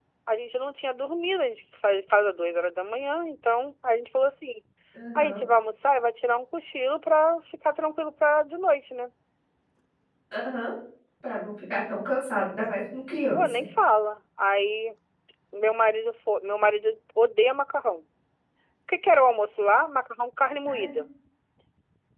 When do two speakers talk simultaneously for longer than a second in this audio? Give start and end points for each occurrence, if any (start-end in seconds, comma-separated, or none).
none